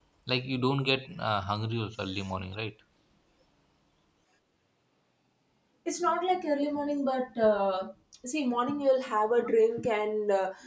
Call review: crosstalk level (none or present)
none